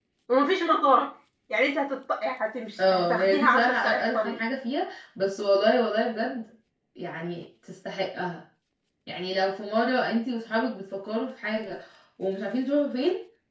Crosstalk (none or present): present